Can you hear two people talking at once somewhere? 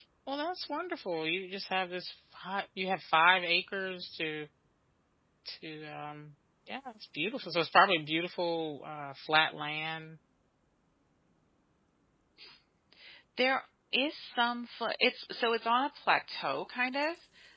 No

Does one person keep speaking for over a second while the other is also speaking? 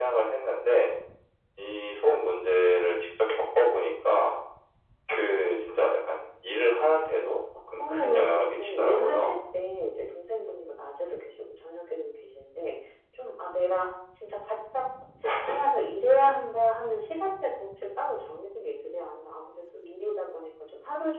Yes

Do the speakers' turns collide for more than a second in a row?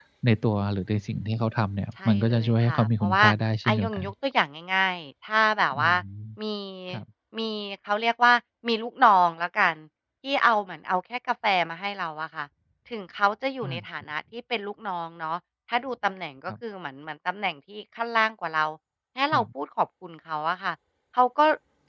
Yes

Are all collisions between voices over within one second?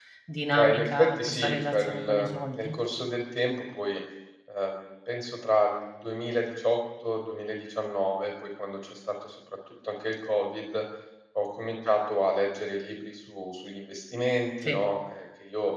No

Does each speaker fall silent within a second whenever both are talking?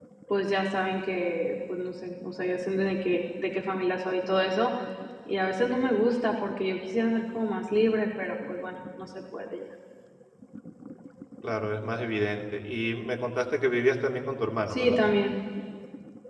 Yes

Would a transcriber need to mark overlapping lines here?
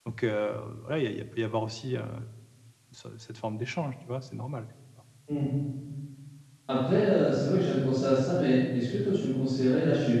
No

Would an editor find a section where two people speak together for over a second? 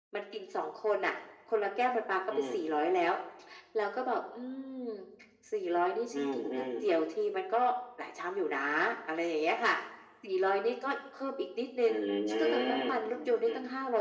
Yes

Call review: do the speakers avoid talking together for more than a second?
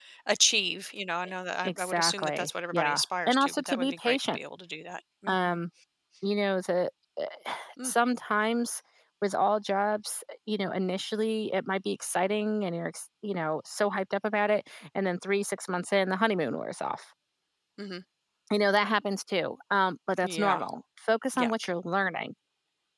No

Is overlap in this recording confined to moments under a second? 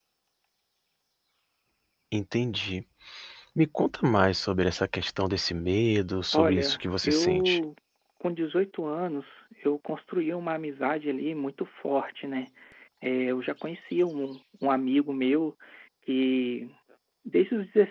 No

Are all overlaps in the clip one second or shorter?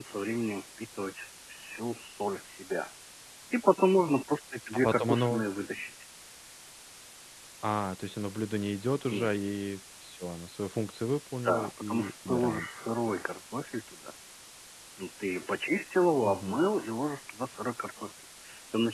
No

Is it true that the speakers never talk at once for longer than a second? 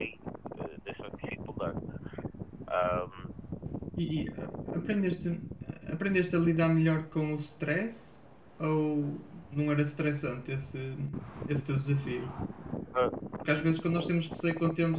Yes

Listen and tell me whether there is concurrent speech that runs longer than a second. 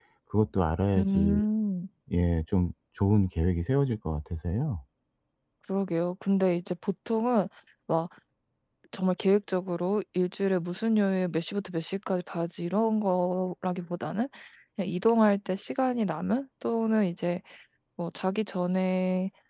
No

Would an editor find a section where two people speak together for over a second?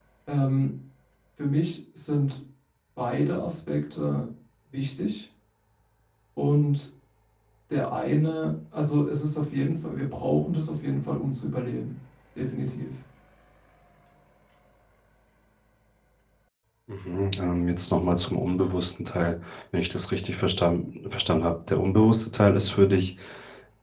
No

